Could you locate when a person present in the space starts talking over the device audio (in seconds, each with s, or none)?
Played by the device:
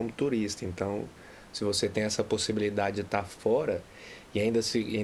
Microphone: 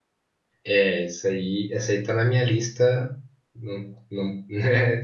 0.6 s